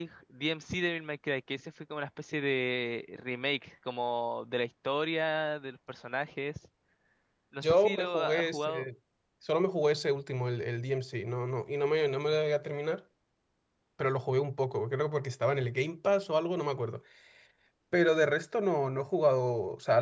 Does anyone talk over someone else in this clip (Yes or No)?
Yes